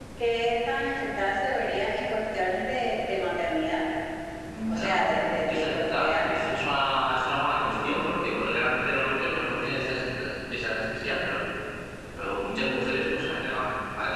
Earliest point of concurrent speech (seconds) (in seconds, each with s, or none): 4.7 s